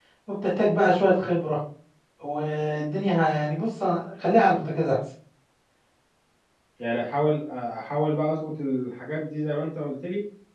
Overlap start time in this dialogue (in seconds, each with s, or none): none